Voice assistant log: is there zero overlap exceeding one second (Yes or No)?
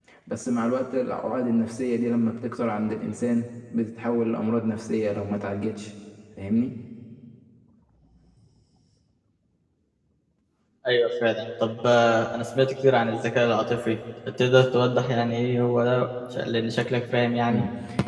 Yes